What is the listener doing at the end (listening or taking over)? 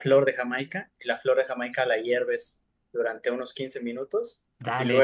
taking over